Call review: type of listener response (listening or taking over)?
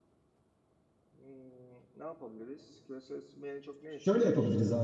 taking over